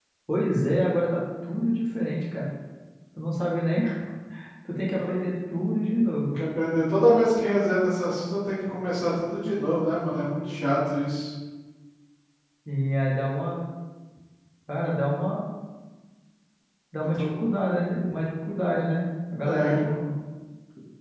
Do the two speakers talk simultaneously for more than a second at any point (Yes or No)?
No